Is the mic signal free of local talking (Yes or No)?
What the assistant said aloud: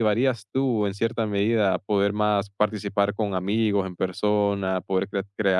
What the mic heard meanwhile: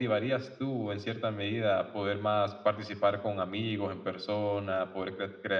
Yes